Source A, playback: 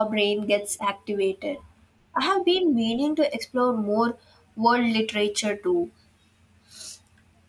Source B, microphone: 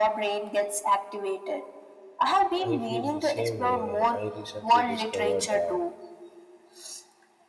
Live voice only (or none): I feel the same way. I recently discovered uh,